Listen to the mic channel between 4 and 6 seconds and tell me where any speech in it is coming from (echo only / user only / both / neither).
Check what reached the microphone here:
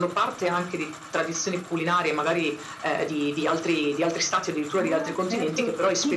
both